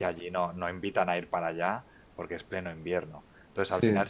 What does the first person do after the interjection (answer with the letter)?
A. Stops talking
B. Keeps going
B